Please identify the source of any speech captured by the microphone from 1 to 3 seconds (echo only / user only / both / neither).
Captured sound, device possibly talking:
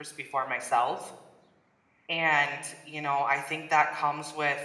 user only